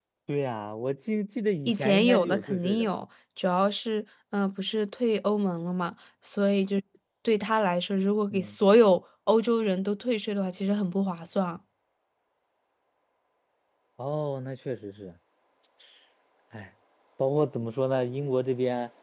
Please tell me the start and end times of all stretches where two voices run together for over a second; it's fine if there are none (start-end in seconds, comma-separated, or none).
1.7-2.9